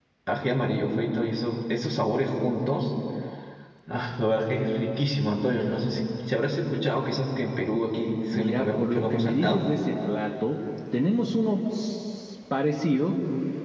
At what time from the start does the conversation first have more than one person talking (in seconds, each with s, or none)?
8.3 s